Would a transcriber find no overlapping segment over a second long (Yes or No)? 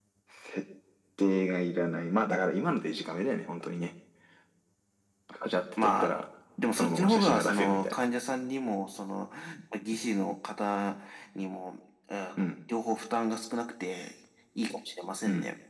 No